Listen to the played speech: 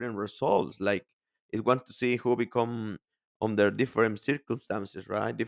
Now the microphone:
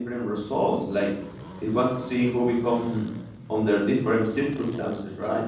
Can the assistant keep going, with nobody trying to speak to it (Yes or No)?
Yes